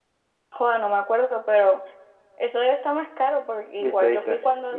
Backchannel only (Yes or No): No